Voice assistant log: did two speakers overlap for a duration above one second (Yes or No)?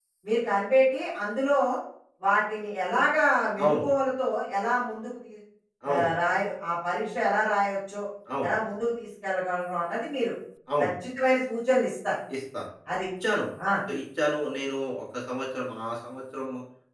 No